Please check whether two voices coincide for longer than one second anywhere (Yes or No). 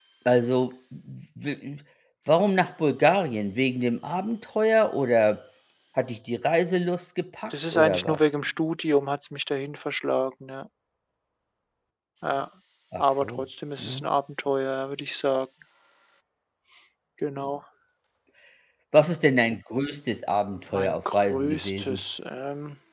Yes